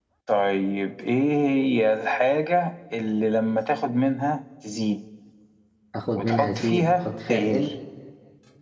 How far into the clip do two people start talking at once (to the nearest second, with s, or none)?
6 s